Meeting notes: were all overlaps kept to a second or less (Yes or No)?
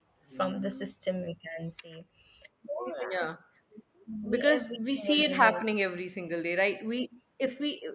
No